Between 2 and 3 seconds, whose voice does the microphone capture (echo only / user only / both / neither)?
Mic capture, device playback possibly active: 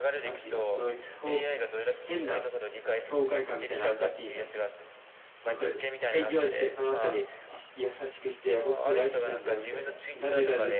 both